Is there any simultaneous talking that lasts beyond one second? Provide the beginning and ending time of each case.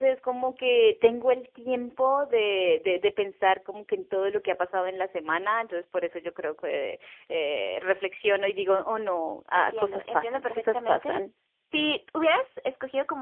9.5-11.2

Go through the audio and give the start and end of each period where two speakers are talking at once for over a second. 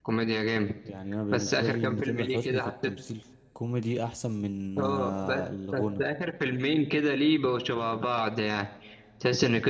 1.3-2.7, 4.8-6.0

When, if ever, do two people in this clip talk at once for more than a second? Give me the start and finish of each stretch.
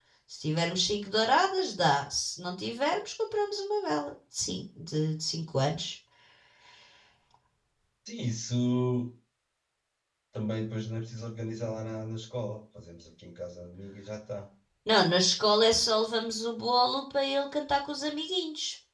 none

